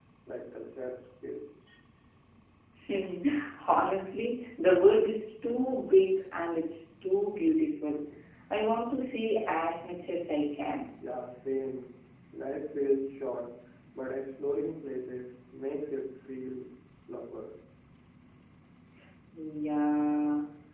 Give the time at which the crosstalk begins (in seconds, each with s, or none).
none